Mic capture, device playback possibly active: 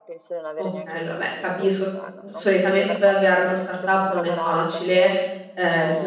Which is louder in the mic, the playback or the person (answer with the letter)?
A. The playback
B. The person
B